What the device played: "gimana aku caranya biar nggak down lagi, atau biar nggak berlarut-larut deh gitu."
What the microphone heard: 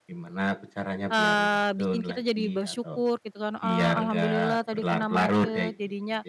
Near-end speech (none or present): present